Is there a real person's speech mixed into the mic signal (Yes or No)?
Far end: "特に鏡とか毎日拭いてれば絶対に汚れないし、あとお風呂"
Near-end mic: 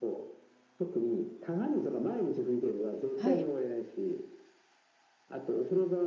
Yes